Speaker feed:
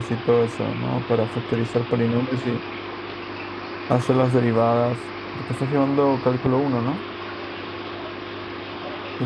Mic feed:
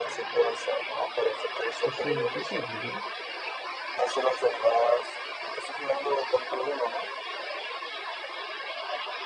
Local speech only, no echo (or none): ¿Eso en qué se aplica?